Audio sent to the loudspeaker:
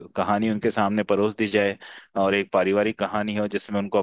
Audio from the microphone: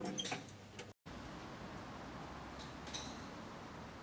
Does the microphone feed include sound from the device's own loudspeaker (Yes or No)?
No